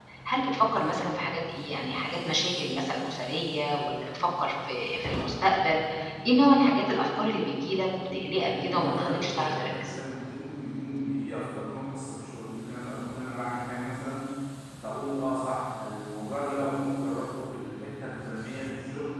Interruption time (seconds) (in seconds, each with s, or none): 8.3 s